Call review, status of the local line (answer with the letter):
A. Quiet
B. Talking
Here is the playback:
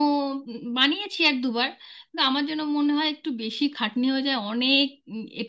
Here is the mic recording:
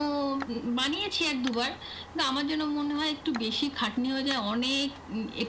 A